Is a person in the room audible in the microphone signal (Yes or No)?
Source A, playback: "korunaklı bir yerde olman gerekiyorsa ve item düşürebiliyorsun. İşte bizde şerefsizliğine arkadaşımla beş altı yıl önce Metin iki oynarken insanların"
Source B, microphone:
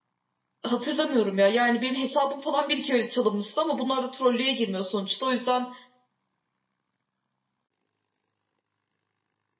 Yes